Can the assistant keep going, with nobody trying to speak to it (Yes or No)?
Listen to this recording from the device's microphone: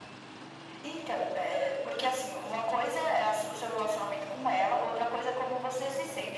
Yes